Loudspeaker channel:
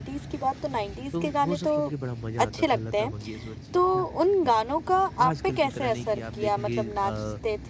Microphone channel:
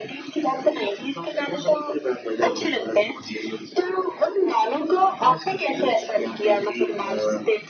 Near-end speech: present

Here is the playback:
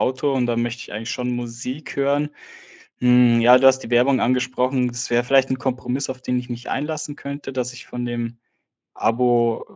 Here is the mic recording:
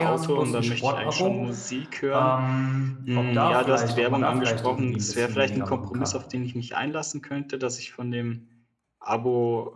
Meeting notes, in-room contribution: present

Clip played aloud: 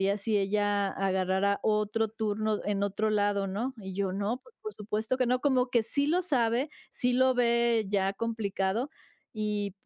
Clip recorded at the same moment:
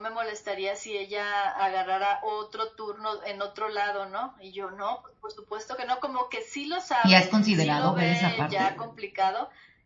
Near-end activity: present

